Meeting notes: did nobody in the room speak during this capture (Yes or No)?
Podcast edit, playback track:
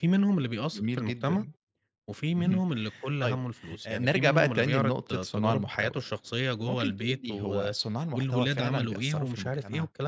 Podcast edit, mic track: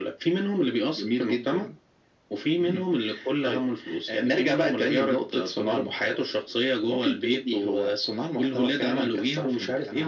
Yes